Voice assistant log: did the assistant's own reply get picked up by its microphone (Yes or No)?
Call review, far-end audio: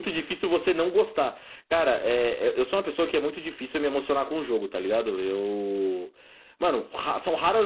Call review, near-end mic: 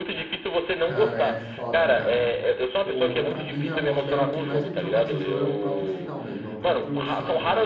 Yes